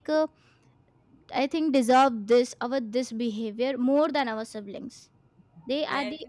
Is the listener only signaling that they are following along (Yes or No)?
Yes